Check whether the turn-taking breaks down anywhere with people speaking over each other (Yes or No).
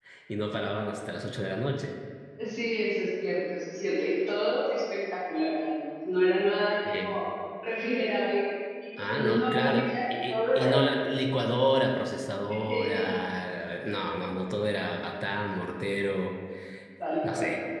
Yes